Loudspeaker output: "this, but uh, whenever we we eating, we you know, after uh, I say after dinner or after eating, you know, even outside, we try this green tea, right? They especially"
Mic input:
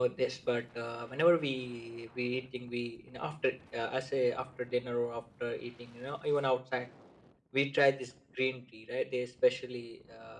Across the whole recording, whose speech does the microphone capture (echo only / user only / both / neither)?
echo only